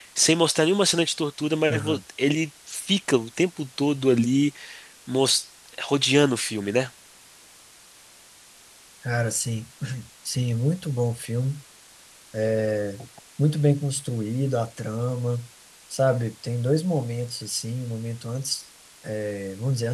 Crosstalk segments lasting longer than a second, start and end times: none

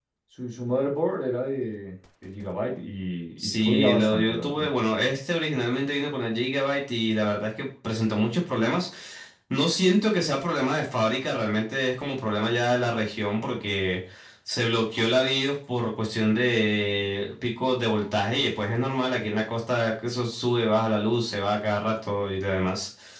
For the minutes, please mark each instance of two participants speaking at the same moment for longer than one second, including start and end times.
3.4-4.7

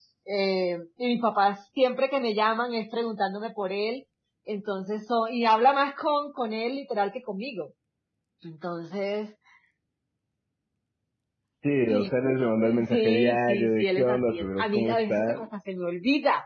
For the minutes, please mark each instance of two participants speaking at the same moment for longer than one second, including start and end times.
12.9-15.5

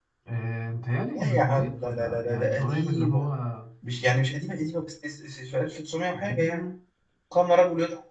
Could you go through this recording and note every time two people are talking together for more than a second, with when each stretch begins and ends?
1.2-3.2

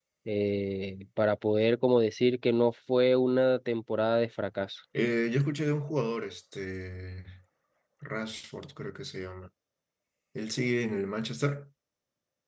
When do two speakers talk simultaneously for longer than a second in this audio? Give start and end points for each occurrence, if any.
none

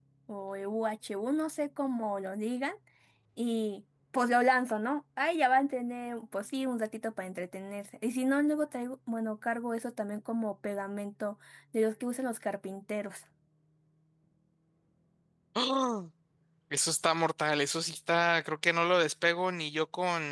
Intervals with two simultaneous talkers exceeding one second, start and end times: none

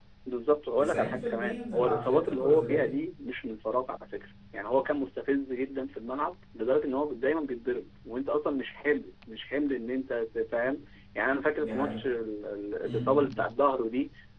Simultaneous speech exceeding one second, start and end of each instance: 0.8-2.9

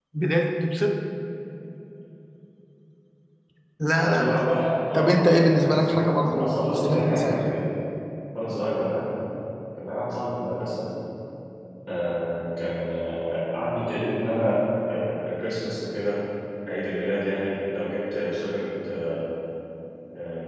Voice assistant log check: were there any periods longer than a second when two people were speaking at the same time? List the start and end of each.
4.9-7.4

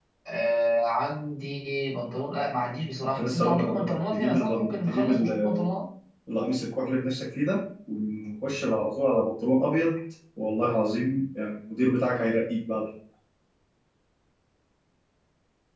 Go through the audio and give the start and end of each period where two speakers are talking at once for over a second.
3.2-5.7

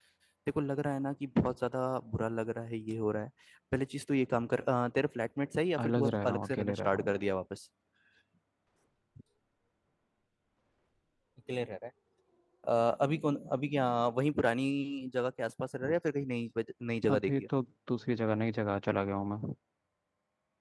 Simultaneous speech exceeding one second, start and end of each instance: 5.8-7.1

